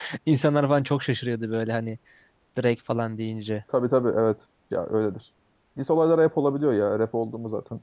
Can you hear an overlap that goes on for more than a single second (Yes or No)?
No